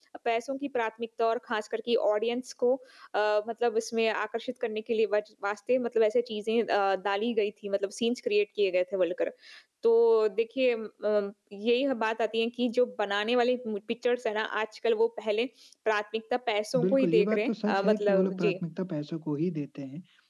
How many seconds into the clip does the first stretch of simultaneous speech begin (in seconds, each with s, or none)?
16.7 s